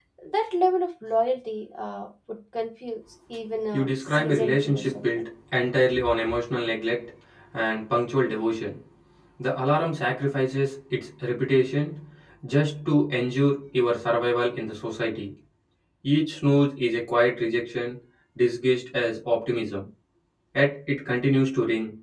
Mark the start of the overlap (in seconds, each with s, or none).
3.7 s